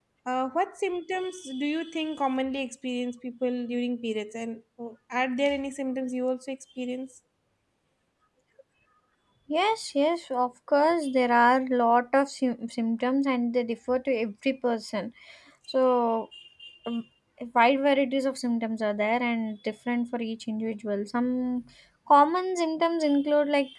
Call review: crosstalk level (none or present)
none